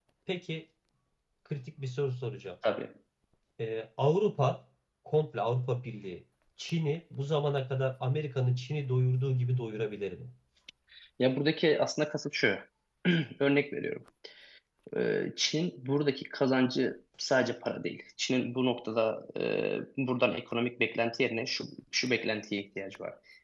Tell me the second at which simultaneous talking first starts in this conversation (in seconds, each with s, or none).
none